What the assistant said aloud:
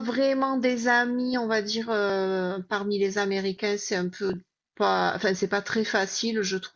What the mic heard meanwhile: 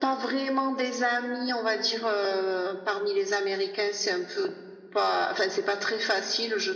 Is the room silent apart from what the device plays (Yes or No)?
Yes